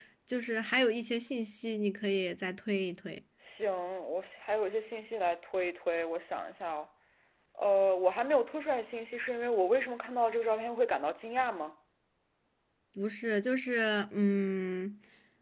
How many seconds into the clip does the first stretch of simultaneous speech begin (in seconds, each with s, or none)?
none